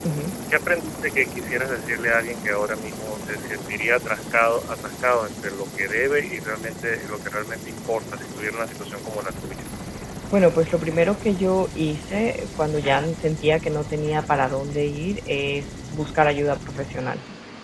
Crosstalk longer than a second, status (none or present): none